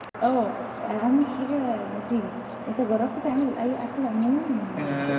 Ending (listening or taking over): taking over